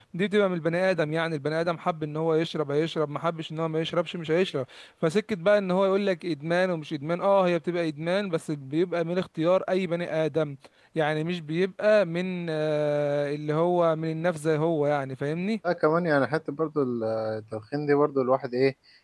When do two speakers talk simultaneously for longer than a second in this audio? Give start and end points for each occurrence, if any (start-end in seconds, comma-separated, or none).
none